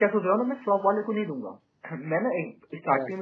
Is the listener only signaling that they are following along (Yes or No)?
Yes